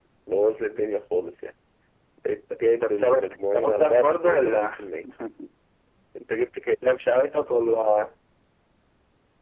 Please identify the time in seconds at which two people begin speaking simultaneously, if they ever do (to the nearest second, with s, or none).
3 s